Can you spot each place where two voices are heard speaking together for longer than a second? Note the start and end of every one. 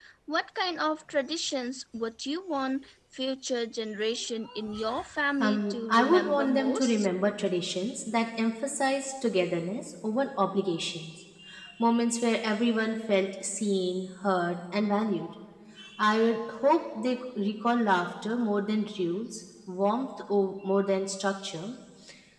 5.4-7.1

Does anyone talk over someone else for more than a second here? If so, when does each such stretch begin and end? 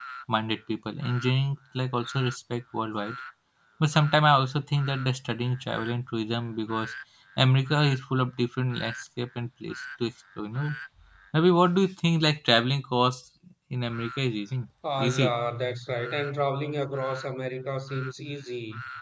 none

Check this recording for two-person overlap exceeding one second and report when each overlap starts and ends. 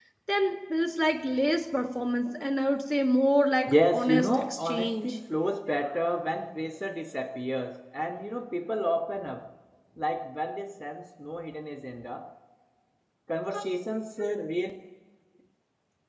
3.7-5.1

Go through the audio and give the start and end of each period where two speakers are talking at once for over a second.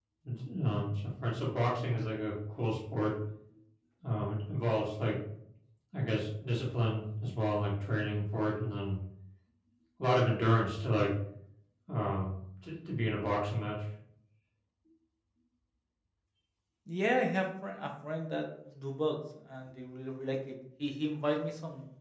none

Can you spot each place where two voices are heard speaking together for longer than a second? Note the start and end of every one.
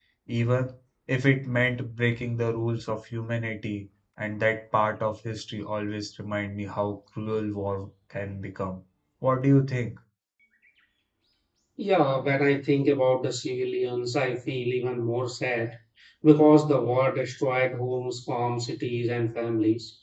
none

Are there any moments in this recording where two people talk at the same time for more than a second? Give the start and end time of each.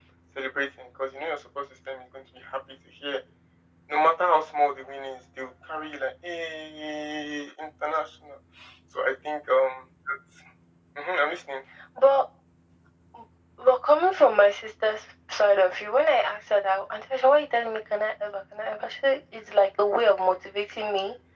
none

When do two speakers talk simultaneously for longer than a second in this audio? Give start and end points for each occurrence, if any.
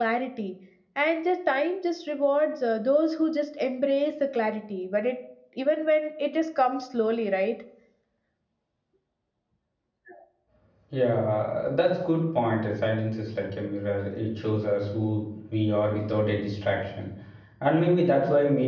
none

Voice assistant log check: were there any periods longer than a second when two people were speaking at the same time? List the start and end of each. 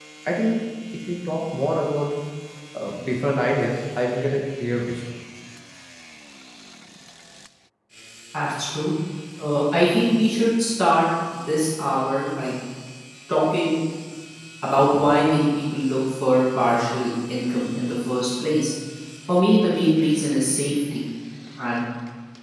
none

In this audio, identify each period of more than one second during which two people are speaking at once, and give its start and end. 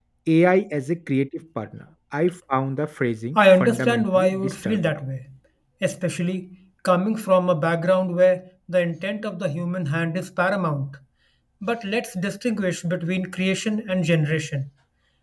3.4-4.9

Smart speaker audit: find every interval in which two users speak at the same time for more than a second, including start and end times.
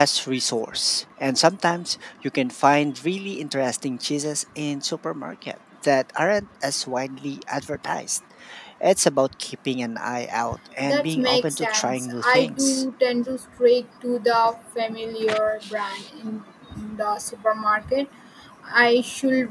10.8-12.8

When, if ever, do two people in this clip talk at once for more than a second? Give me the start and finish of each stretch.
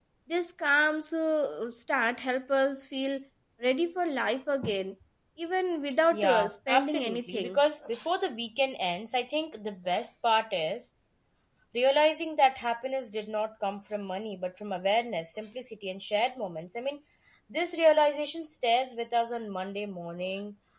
6.1-7.6

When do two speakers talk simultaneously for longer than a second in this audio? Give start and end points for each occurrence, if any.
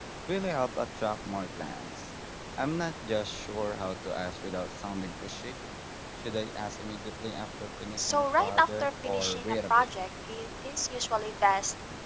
8.0-9.8

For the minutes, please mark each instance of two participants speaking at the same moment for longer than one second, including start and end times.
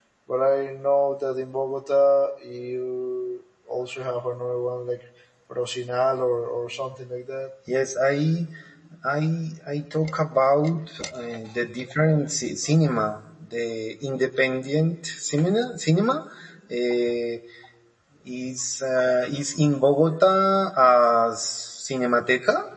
none

